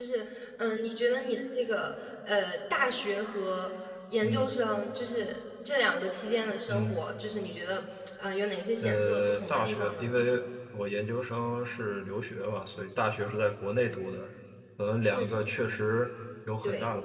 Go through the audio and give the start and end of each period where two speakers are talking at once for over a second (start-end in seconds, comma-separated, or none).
8.8-10.1